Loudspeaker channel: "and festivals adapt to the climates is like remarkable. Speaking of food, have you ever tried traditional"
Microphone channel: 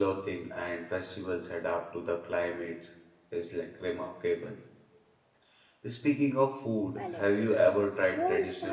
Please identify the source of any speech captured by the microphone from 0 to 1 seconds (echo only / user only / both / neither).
echo only